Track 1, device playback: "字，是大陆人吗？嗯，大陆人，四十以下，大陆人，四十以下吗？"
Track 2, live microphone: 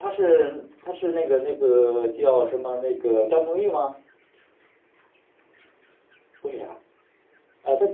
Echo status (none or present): none